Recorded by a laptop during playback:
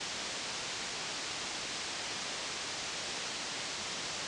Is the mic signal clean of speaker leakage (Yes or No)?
Yes